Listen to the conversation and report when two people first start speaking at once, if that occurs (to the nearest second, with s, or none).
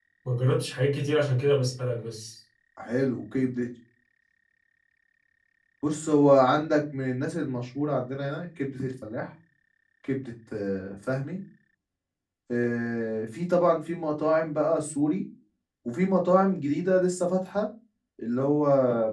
none